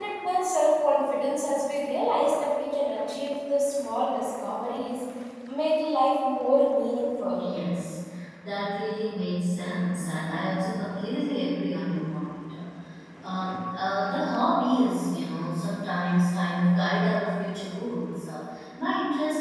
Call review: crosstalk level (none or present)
none